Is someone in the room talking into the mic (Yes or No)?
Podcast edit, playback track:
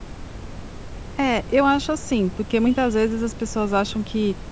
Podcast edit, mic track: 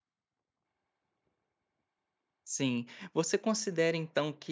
Yes